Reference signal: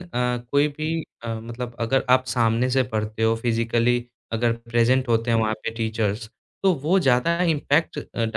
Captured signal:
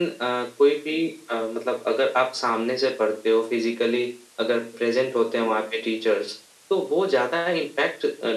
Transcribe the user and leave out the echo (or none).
none